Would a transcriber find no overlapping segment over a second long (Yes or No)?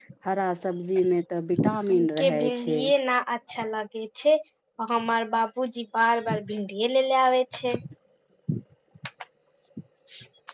No